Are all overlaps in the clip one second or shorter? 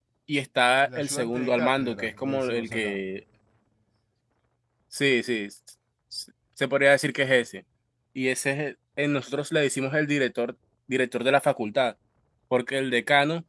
No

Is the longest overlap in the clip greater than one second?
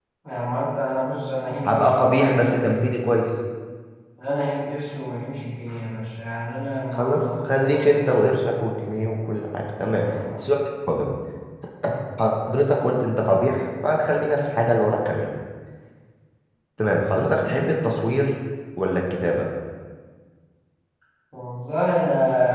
Yes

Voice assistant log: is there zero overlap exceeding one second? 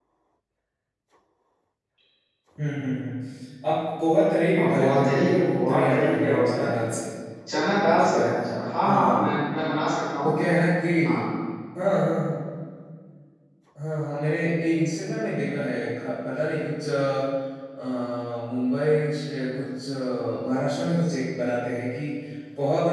No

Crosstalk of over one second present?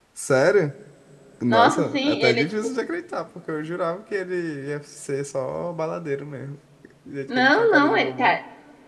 Yes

